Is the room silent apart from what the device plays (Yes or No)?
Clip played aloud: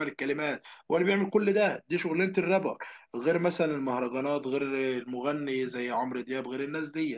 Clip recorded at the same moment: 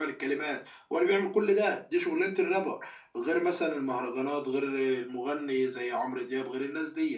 Yes